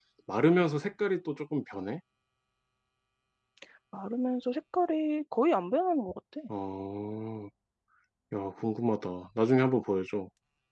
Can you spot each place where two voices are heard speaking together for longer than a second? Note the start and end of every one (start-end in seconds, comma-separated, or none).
none